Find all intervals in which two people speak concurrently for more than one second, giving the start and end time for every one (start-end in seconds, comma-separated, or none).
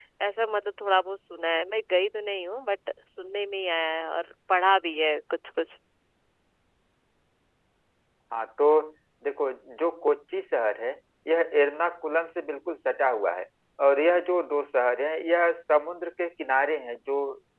none